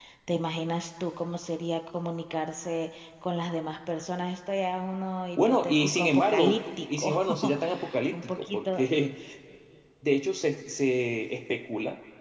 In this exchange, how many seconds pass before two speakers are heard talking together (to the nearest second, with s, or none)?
5 s